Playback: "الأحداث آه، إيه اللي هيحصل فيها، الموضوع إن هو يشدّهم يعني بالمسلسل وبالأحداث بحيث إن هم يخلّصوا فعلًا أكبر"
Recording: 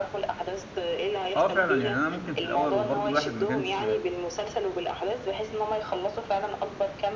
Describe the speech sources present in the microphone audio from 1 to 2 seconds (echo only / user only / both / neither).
both